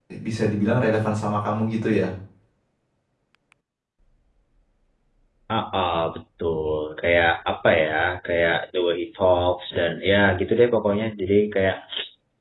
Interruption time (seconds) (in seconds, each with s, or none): none